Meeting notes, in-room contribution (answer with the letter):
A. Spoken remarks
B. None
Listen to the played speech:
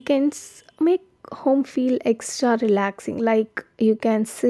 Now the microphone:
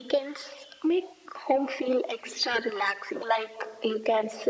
B